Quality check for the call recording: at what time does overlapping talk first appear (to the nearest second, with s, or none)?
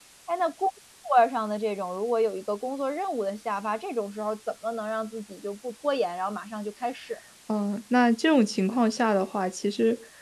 none